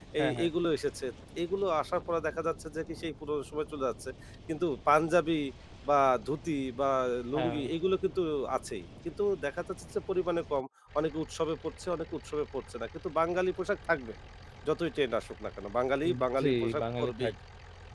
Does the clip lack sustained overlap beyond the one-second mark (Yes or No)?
No